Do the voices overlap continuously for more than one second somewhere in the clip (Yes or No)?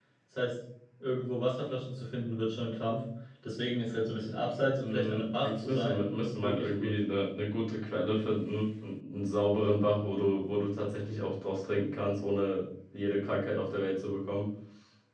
Yes